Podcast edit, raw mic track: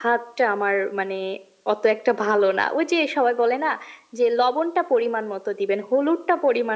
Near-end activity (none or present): none